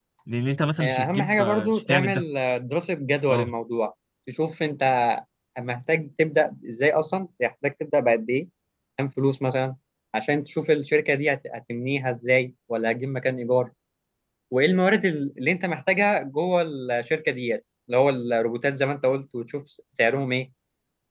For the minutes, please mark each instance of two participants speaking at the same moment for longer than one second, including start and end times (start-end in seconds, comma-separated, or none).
0.8-2.2